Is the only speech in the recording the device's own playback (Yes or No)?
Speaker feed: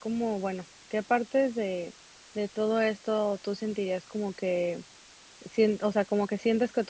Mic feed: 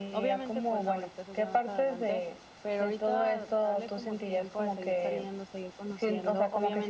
No